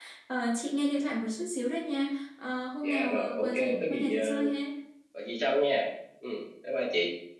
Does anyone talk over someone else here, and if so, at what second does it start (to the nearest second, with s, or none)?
3 s